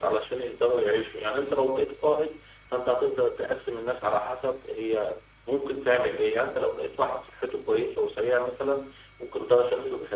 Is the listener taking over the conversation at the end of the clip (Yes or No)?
No